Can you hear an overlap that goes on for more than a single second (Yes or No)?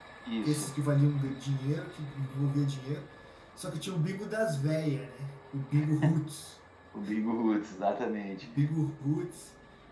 No